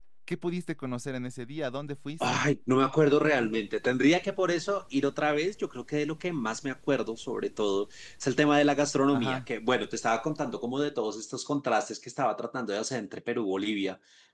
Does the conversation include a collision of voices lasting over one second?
No

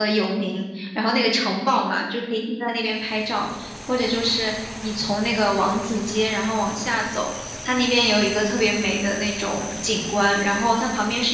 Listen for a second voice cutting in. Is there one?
No

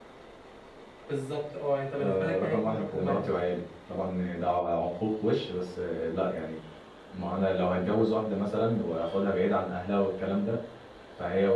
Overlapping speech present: Yes, from 1.9 s

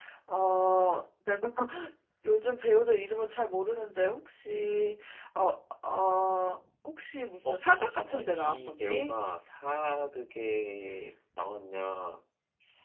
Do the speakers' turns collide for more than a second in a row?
Yes, from 7.4 s

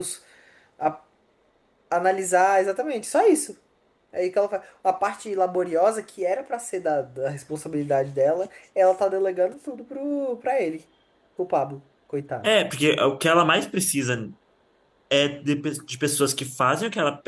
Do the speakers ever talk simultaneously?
No

